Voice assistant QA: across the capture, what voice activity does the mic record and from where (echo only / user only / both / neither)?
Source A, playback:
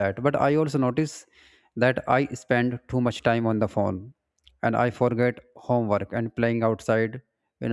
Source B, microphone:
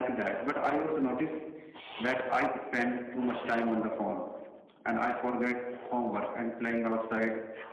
echo only